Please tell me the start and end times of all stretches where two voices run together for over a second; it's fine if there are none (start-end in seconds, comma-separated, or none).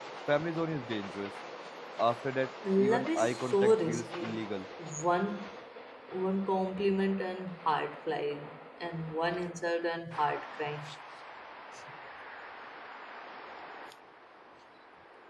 2.8-4.4